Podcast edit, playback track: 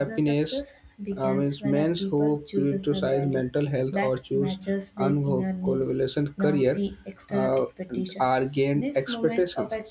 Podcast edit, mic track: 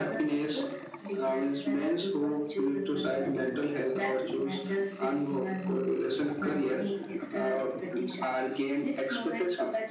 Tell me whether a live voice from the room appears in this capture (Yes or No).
No